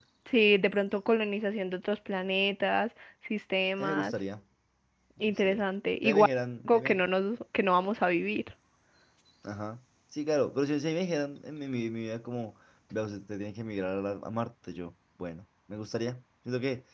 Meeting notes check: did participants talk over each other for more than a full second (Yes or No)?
No